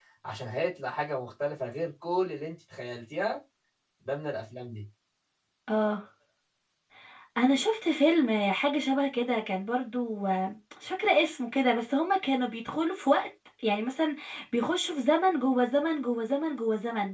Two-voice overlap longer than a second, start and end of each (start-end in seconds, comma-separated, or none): none